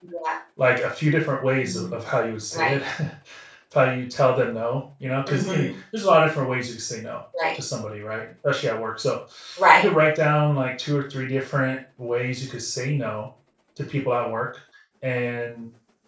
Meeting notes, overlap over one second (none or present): none